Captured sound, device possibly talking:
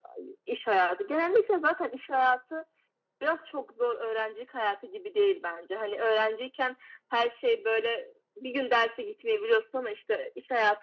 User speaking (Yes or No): No